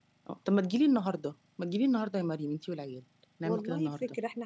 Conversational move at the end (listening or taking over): taking over